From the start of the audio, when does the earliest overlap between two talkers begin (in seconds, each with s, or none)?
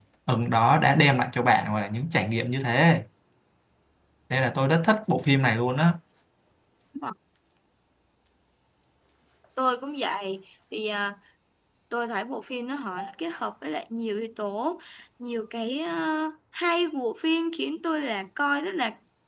none